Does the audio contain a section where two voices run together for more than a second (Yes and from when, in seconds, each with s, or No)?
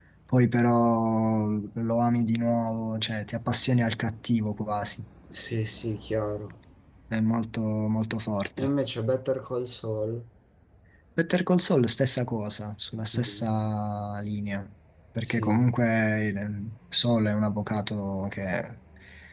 No